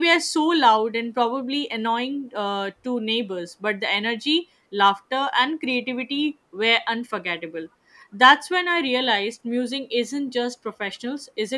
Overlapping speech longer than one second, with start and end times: none

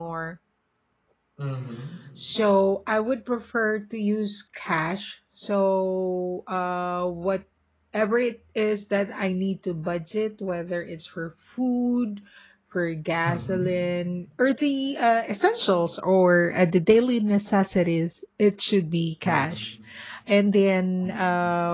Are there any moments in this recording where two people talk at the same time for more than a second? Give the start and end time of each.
none

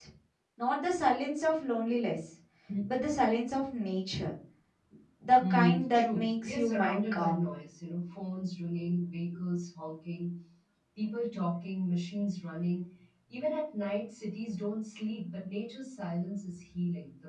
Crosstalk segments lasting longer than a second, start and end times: 5.5-7.5

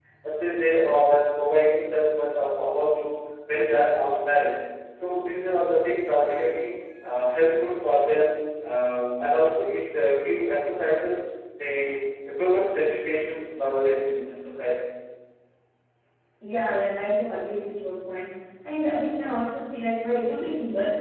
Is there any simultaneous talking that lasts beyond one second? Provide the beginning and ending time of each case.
none

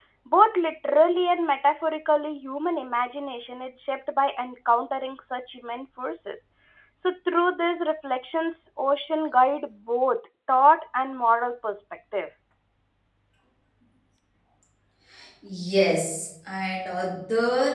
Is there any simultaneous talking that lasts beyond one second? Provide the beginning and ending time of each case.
none

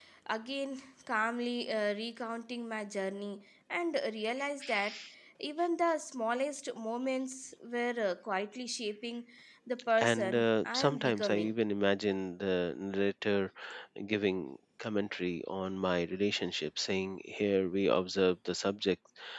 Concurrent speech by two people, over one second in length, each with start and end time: 10.0-11.5

